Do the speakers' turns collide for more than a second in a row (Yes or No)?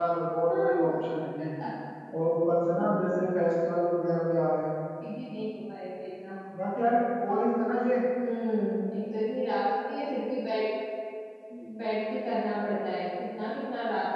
No